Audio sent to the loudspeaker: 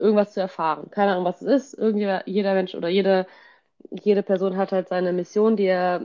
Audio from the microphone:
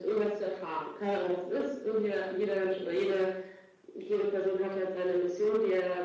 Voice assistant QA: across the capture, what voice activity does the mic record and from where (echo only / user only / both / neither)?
echo only